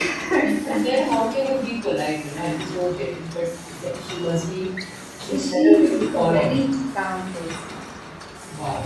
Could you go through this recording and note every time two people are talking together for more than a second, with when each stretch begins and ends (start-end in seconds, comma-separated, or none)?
5.4-6.6